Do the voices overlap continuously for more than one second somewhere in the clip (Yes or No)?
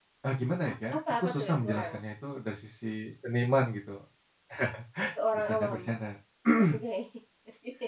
Yes